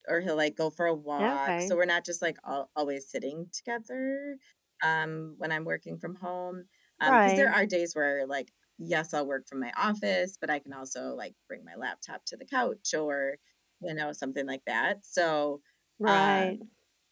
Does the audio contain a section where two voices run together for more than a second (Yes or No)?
No